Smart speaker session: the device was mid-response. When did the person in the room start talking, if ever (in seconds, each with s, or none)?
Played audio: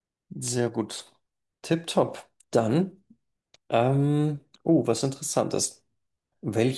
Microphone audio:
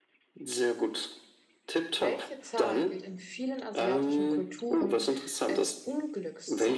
2.0 s